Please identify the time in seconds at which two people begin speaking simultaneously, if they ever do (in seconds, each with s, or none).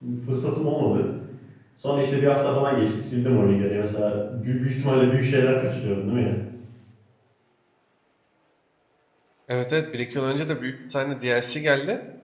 none